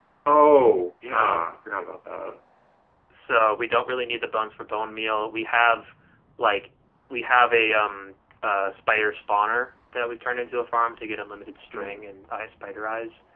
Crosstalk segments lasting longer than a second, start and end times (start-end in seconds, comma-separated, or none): none